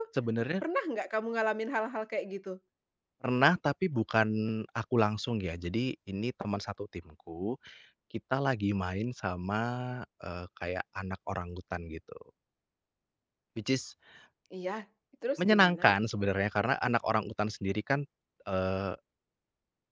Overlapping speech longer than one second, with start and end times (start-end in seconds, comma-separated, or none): none